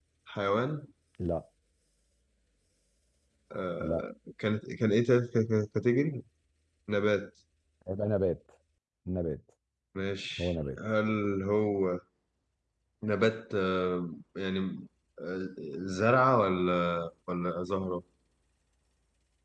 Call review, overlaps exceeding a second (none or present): none